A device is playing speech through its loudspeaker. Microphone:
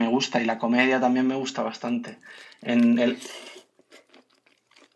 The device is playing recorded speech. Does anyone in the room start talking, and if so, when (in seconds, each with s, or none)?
none